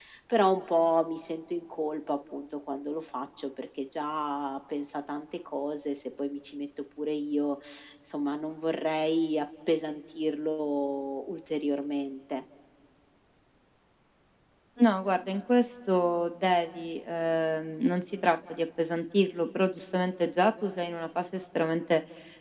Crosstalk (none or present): none